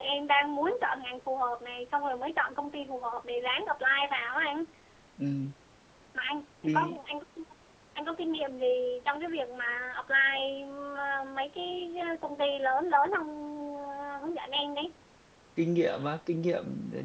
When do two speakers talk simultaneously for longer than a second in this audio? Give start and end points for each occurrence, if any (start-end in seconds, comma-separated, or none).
none